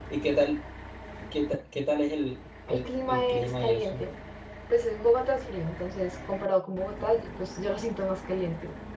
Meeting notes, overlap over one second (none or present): present